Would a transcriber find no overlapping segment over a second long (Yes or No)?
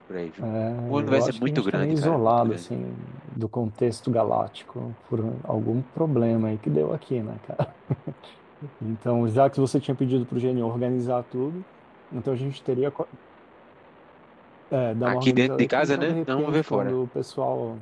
No